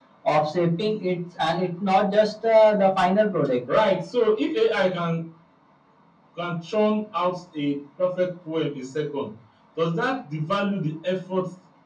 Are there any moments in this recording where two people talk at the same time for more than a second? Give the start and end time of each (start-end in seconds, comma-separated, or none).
none